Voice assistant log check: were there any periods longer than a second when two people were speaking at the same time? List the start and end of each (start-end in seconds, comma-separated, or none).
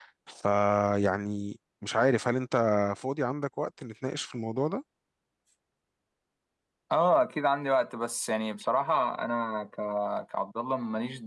none